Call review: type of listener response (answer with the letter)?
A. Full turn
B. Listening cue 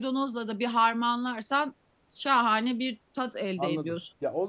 A